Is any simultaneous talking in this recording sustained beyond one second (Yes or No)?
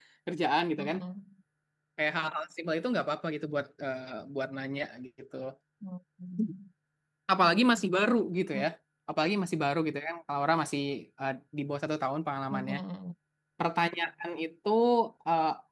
No